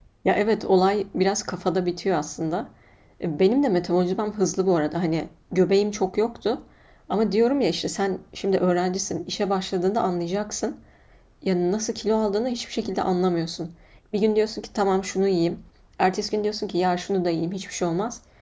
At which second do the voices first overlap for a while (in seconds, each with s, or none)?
none